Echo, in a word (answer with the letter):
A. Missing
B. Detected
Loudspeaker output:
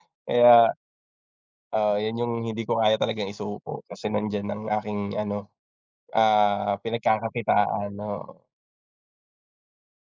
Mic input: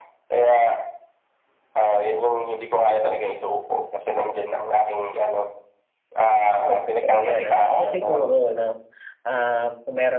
B